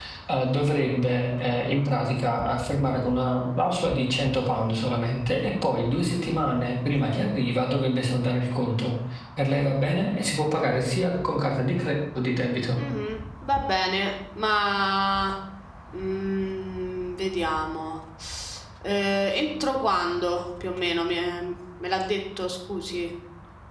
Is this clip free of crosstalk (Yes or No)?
Yes